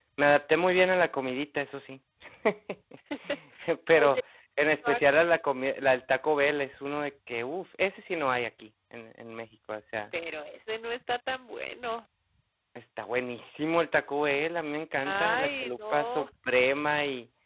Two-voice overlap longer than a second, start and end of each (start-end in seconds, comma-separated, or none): 15.0-16.2